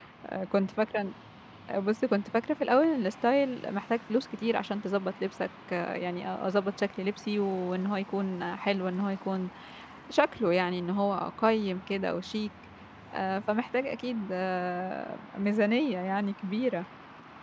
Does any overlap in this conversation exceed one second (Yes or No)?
No